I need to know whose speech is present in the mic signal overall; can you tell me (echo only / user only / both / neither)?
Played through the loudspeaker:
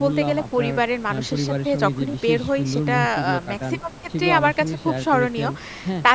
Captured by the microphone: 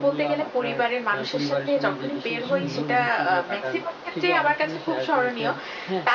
both